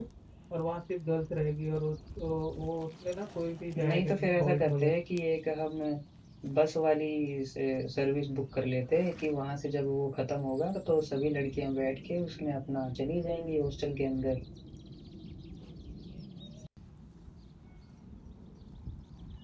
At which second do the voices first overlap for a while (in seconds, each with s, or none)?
3.7 s